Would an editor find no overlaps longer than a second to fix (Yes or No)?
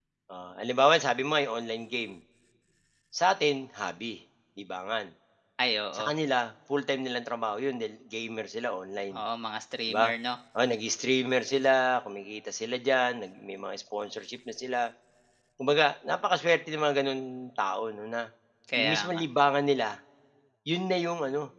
Yes